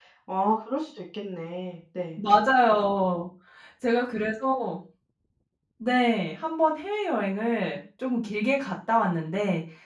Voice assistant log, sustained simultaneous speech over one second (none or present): none